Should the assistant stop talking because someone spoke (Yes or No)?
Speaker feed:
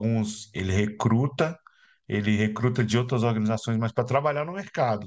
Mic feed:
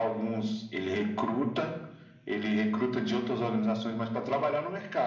No